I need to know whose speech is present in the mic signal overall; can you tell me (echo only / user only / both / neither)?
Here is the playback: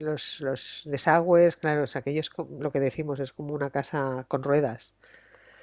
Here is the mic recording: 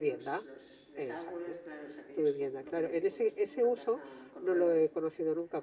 both